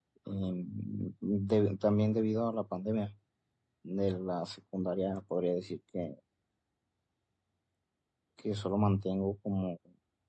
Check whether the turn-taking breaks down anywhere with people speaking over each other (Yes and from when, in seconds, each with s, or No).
No